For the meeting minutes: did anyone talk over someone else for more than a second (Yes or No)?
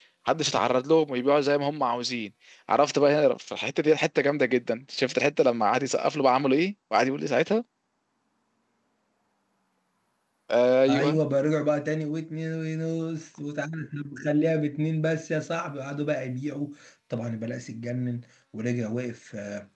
No